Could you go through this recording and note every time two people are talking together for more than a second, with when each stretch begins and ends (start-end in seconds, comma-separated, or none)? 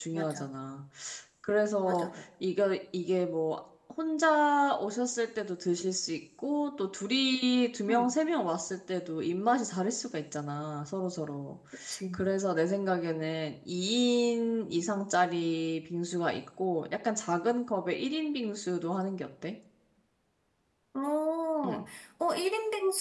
none